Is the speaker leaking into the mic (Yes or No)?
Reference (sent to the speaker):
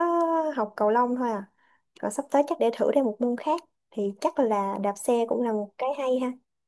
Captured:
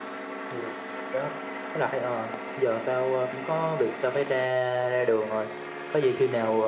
No